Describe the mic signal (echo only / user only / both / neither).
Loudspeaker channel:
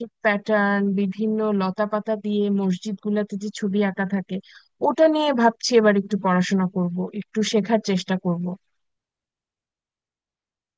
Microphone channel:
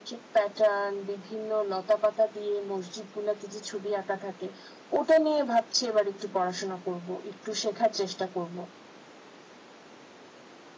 echo only